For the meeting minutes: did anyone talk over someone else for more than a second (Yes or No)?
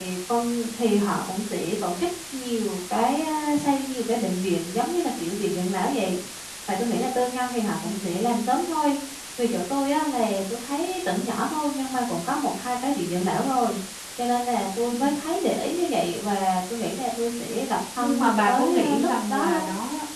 Yes